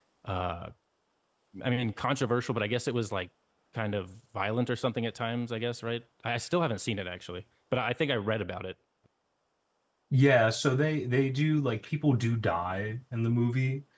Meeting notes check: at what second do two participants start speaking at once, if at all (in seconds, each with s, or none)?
none